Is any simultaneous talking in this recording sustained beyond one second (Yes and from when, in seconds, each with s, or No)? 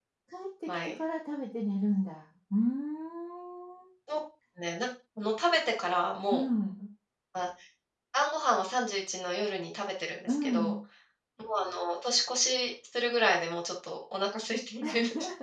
No